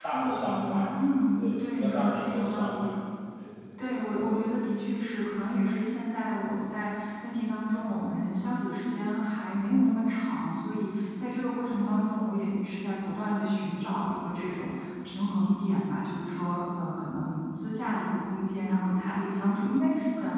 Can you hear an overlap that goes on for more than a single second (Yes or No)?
Yes